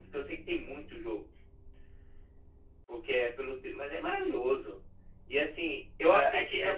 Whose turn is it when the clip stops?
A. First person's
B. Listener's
B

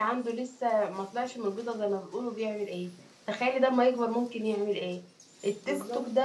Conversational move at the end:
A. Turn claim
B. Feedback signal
B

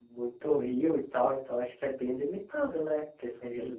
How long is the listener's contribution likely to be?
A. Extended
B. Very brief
A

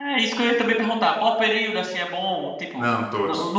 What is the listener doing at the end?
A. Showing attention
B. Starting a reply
A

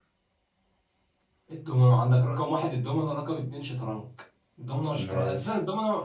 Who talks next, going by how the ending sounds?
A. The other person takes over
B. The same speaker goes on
B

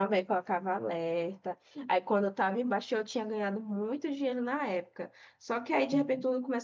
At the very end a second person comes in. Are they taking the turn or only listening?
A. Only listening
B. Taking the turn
A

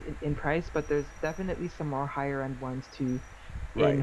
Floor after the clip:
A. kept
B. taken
B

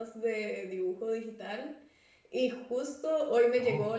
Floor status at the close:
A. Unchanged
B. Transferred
A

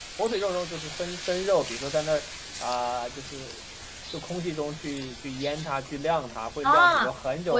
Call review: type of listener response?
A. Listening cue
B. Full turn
B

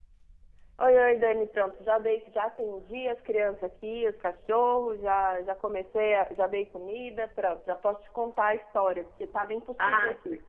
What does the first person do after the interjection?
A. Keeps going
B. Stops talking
B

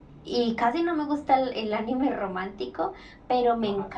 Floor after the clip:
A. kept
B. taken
A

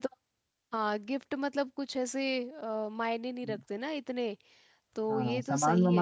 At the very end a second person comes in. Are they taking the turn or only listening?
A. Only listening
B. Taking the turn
B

